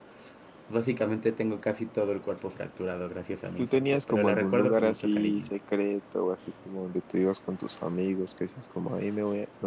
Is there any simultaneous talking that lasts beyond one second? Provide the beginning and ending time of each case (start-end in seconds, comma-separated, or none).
3.6-5.5